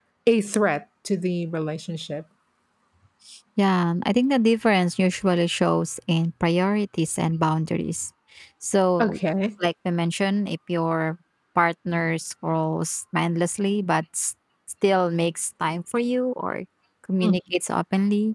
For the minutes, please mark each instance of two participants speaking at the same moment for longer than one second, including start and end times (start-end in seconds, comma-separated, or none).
none